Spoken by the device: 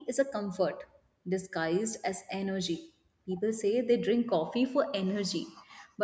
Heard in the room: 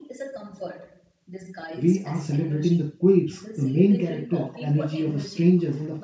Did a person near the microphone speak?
Yes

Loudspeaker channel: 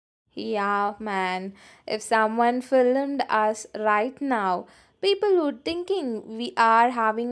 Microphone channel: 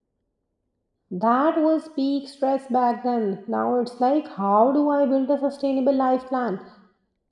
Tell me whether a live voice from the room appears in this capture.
Yes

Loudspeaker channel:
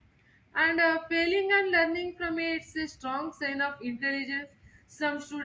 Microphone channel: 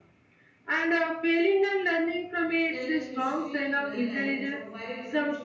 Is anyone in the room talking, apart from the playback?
Yes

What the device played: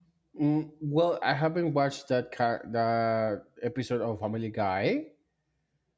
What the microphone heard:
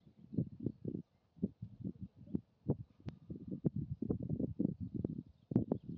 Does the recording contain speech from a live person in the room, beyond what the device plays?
No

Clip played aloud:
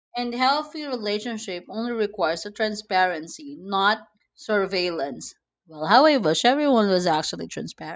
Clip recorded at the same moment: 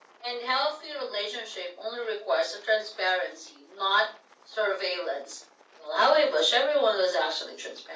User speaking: No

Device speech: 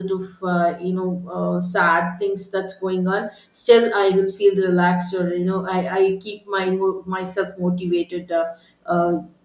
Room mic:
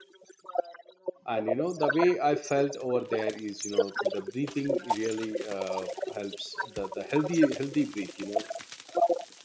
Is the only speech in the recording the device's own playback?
No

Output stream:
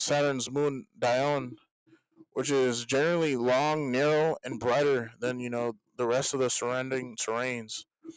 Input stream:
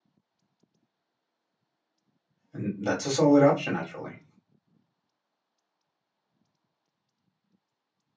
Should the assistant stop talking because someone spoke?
Yes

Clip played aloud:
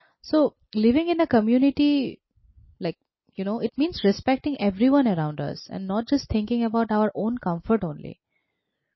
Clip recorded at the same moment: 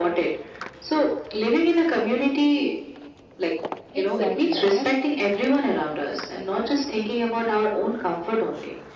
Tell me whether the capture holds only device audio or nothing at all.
No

